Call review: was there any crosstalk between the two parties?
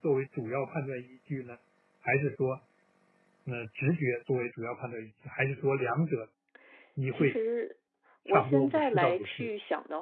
Yes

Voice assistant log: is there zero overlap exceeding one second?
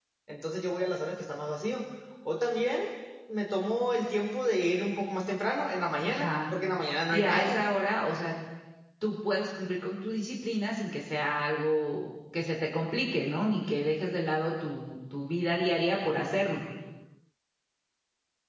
Yes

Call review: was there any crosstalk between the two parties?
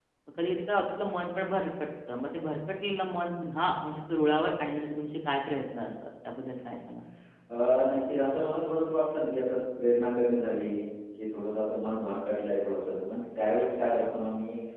No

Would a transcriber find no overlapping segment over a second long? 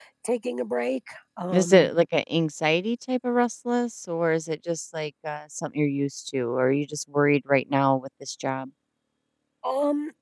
Yes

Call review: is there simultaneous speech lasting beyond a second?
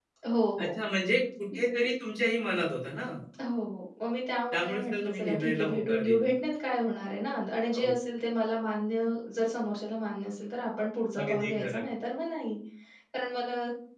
Yes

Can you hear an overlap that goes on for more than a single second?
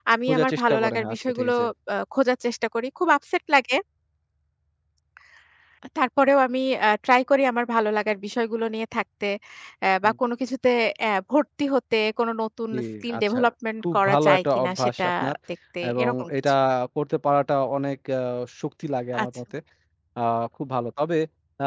Yes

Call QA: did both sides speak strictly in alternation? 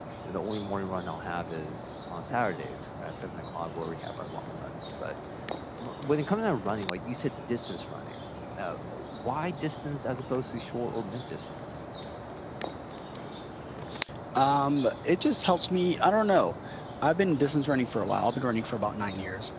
Yes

